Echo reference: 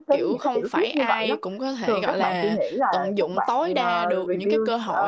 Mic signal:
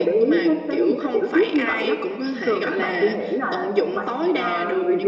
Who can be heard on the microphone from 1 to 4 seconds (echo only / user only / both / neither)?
echo only